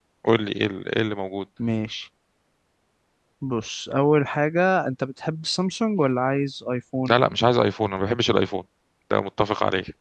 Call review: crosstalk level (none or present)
none